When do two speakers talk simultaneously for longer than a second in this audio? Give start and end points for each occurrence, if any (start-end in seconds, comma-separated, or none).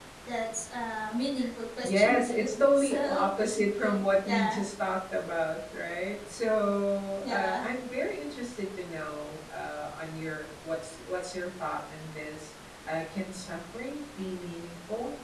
1.8-3.3